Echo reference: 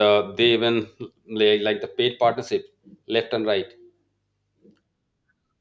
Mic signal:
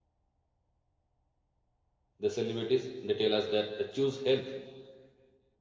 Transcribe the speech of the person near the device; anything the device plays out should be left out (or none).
the celebrities they tell us that they choose health